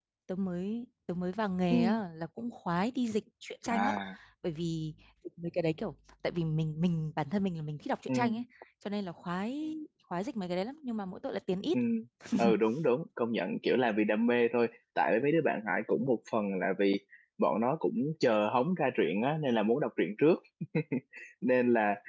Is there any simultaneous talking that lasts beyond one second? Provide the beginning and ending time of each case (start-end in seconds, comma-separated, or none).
none